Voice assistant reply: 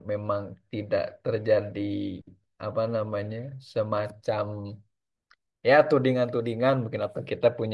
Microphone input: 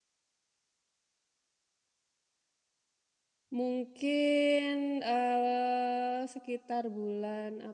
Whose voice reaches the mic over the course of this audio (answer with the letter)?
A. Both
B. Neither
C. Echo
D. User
D